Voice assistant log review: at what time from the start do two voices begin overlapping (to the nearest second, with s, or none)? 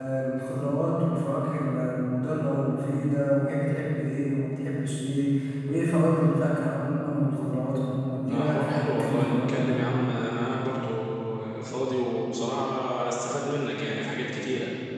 8 s